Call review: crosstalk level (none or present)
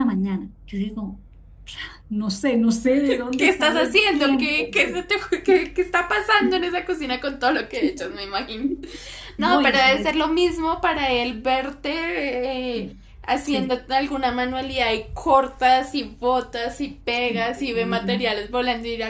present